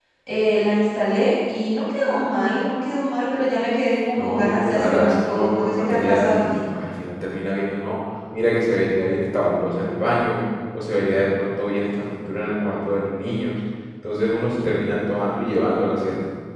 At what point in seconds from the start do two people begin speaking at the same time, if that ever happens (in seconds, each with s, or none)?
4.2 s